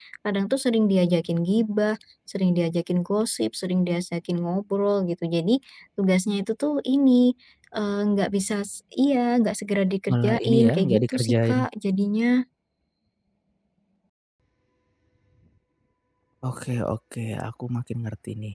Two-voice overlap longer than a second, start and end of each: 10.1-11.6

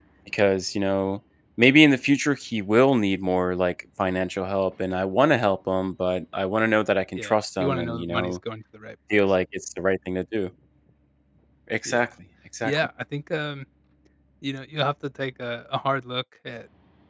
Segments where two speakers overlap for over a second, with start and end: 7.2-8.4

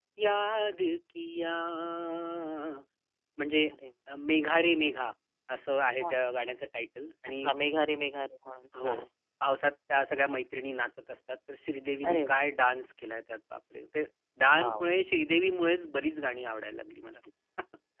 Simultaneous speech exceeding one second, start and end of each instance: none

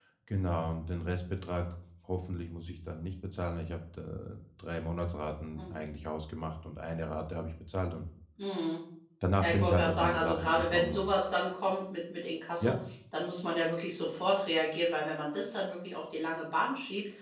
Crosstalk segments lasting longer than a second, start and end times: 9.4-11.1

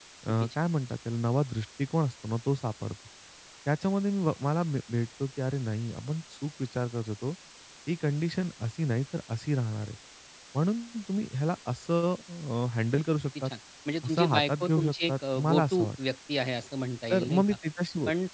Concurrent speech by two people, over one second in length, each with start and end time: 14.1-15.9

